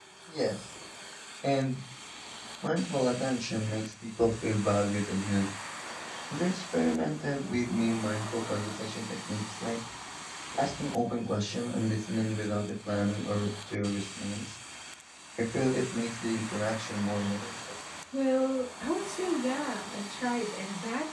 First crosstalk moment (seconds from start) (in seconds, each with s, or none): none